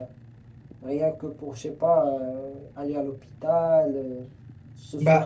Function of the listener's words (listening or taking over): taking over